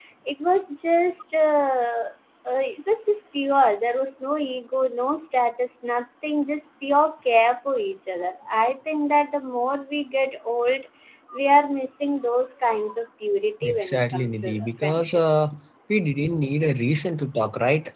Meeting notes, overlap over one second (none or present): present